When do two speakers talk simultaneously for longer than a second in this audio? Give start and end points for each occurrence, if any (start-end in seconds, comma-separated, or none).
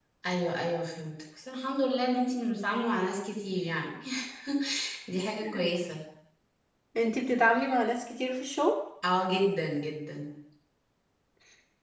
none